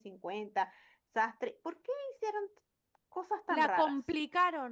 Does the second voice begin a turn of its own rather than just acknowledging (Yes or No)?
Yes